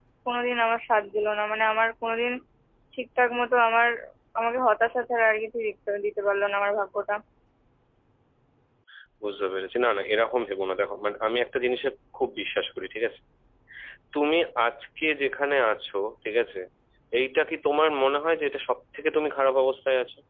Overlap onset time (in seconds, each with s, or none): none